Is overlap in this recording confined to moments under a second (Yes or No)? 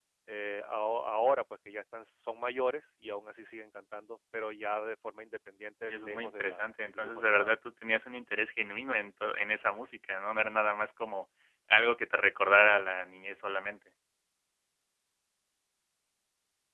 No